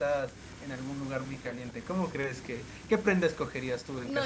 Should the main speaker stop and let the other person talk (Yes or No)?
Yes